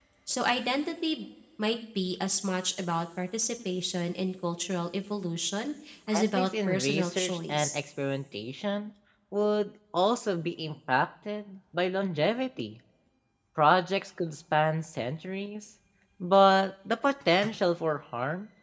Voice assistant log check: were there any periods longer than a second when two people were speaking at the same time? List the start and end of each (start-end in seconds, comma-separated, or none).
6.2-7.8